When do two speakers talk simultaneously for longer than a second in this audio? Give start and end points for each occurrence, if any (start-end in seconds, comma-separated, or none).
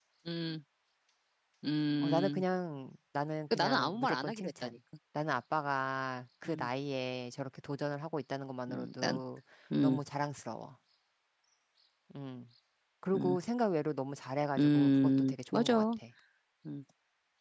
3.5-4.7, 14.6-15.8